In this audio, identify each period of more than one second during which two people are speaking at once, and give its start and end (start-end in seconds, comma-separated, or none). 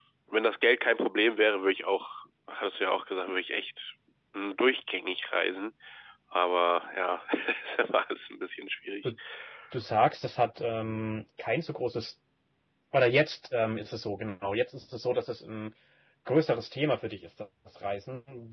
none